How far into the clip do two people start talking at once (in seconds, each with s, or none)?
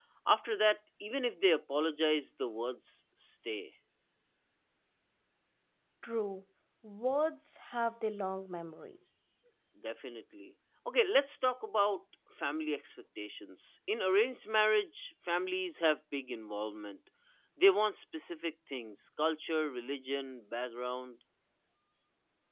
none